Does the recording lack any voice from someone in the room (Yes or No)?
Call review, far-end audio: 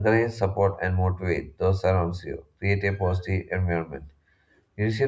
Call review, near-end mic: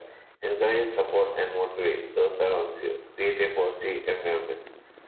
Yes